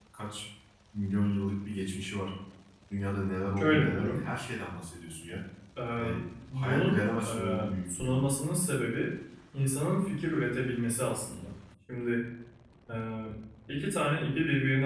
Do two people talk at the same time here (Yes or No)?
Yes